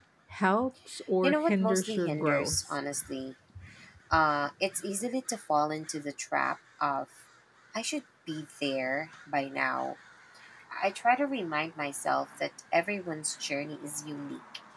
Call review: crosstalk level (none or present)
present